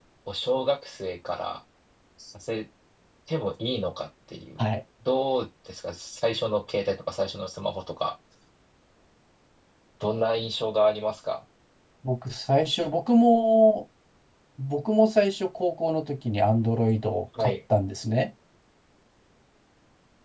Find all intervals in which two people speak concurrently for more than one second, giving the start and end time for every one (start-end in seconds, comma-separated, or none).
none